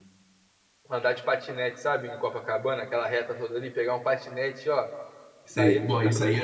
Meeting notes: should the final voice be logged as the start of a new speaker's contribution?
Yes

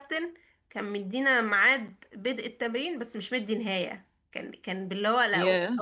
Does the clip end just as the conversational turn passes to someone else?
No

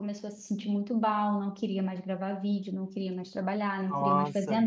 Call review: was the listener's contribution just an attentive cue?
Yes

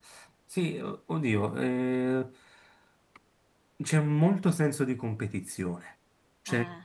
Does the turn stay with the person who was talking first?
Yes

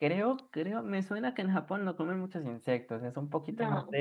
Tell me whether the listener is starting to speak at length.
No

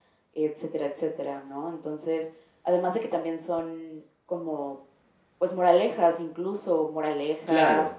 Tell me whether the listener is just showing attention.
Yes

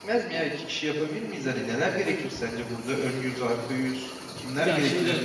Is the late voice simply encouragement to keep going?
No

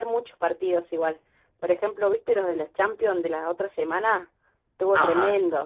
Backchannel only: No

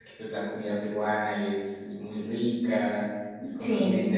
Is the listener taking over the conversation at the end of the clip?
No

